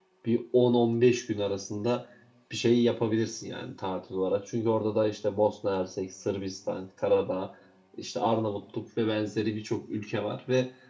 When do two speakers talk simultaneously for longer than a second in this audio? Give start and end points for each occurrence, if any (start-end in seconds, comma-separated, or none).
none